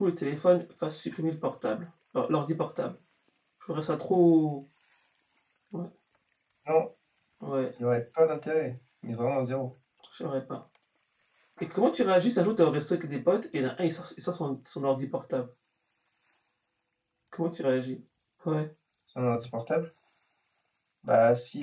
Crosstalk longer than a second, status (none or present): none